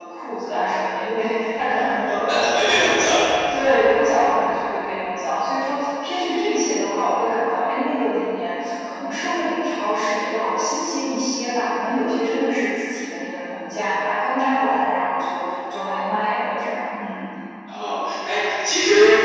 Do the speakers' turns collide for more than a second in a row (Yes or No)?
No